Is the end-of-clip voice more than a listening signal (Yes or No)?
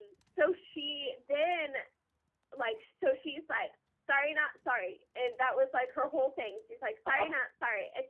No